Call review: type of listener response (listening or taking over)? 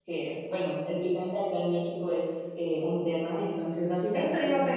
taking over